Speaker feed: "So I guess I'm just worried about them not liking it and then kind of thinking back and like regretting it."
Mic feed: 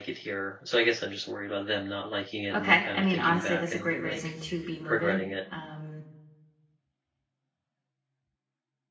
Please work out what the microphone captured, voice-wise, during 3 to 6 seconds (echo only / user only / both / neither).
both